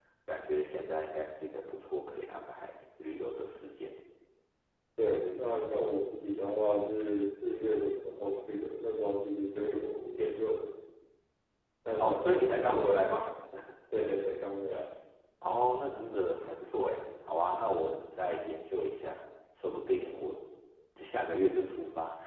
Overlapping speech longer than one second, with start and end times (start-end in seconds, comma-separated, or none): 12.0-13.2